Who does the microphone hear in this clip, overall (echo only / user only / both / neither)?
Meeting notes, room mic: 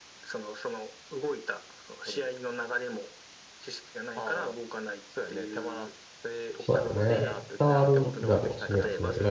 both